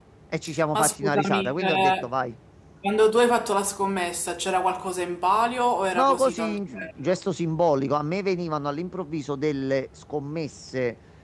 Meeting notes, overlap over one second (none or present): present